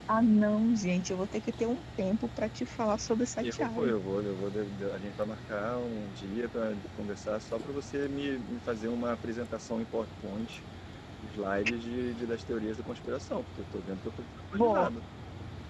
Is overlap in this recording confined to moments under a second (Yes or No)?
Yes